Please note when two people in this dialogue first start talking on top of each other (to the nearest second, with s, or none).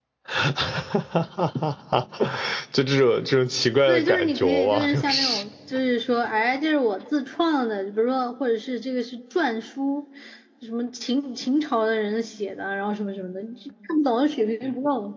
4 s